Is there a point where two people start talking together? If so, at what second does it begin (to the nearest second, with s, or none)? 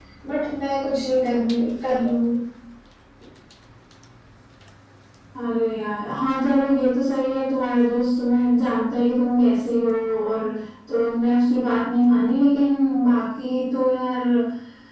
none